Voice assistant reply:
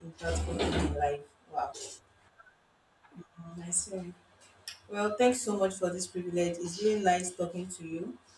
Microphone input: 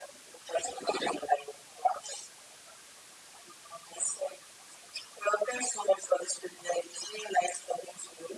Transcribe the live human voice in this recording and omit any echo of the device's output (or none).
none